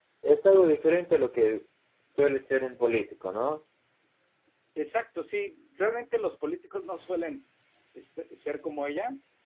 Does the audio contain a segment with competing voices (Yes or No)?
No